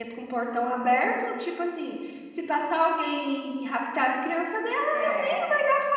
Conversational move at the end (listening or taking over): listening